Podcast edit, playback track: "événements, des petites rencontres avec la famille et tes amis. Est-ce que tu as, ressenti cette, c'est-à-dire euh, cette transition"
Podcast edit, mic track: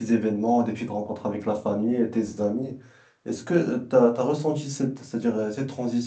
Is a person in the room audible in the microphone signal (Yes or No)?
No